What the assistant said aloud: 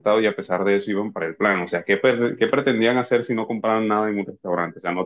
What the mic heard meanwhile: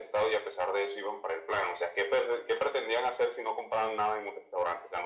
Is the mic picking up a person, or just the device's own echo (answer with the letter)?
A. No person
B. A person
A